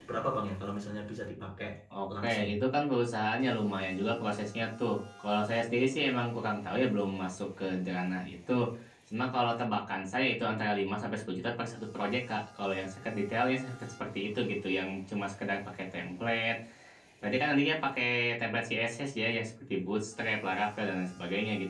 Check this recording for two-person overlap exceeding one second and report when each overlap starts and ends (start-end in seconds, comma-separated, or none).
none